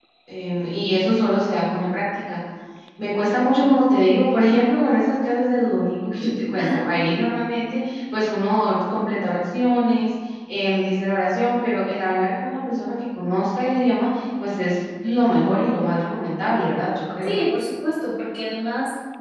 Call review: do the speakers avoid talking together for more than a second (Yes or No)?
Yes